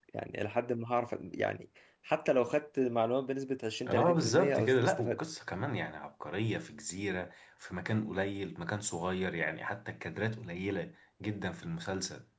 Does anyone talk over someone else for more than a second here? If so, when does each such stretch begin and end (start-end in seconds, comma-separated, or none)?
3.9-5.2